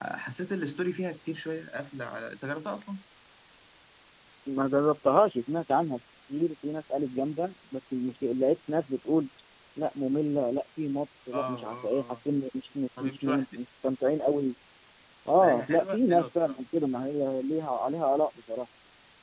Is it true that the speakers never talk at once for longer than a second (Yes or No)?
No